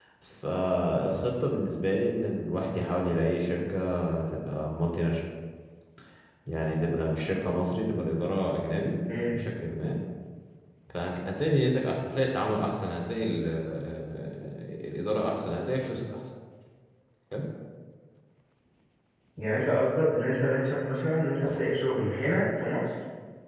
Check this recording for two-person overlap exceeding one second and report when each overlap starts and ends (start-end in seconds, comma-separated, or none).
none